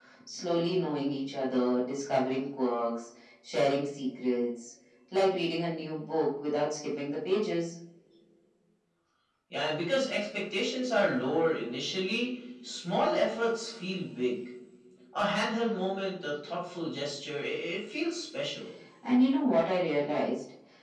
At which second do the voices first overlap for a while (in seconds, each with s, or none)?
none